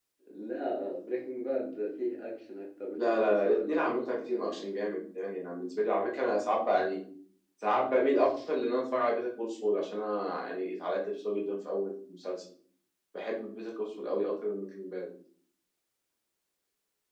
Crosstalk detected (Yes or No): Yes